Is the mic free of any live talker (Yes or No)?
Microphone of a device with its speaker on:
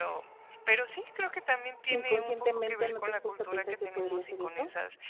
No